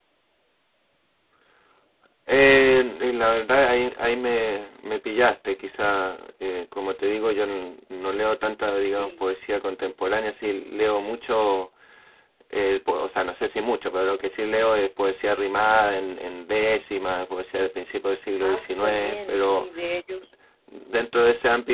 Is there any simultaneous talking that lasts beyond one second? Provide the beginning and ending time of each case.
18.4-19.7

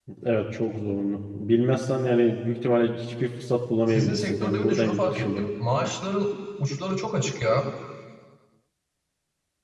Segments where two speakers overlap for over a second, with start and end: 3.9-5.4

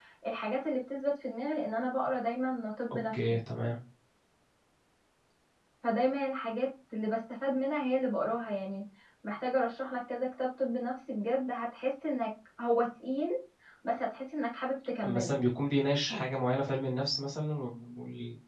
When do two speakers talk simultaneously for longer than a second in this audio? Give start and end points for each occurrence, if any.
none

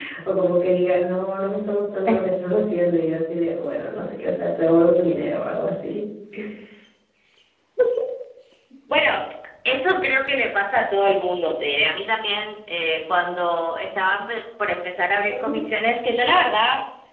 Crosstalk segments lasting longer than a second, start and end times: none

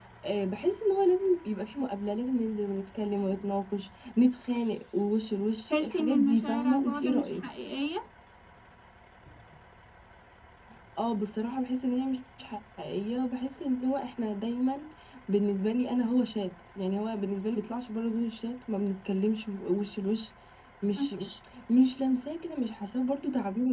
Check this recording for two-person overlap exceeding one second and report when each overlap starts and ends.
5.7-7.4

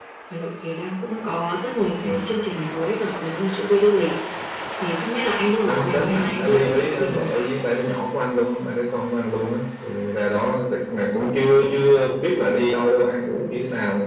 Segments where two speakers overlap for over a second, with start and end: 5.7-7.5

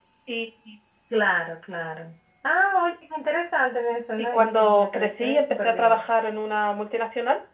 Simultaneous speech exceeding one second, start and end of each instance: 4.2-6.1

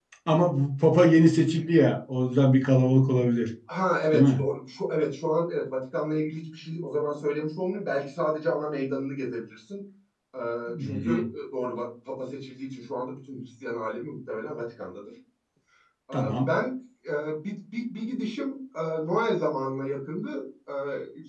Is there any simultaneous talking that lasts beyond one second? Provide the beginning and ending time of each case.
none

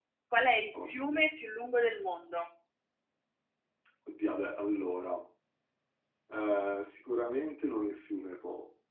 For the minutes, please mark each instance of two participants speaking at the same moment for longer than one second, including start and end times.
none

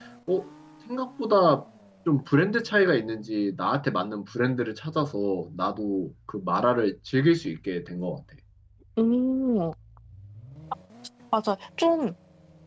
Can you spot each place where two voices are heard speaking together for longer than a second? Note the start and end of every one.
none

